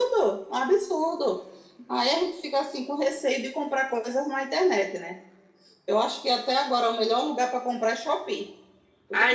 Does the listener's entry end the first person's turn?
No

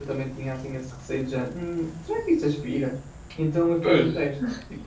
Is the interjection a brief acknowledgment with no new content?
Yes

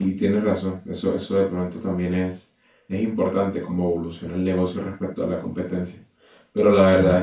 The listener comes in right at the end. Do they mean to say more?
No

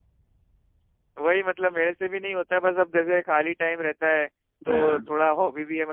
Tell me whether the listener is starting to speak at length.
No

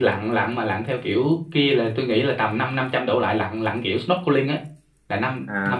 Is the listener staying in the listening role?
No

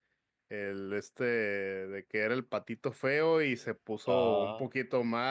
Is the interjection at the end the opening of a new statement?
No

